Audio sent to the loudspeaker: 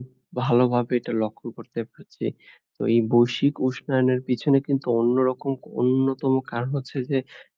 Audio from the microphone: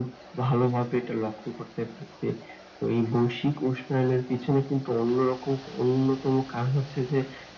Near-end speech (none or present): none